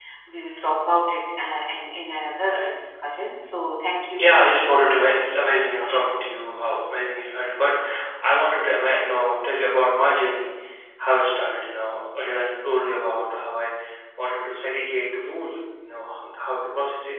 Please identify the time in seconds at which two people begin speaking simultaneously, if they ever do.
4 s

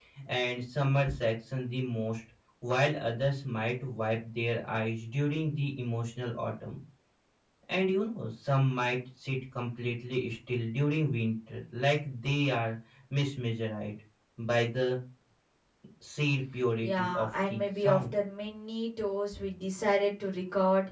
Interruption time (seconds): 17 s

